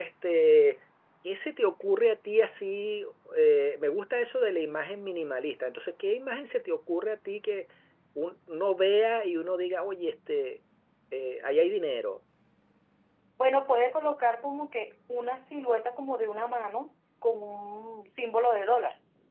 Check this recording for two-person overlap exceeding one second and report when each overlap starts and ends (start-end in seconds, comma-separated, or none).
none